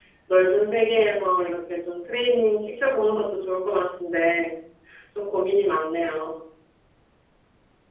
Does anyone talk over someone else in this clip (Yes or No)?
No